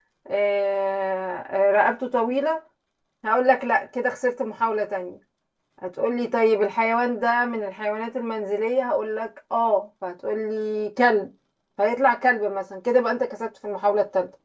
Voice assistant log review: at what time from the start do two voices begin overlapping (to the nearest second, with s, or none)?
none